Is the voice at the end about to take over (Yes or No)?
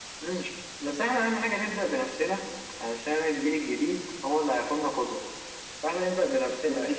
No